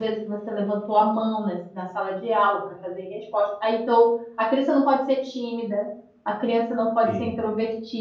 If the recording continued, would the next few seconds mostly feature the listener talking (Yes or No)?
No